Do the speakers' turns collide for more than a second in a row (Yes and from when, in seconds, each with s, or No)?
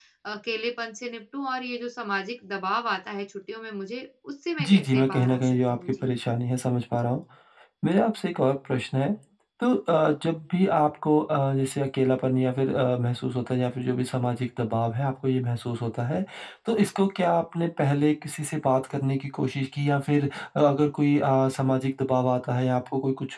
Yes, from 4.6 s